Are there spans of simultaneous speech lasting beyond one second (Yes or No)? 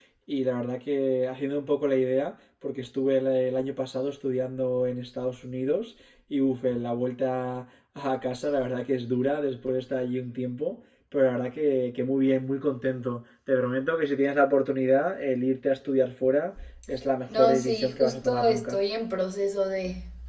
Yes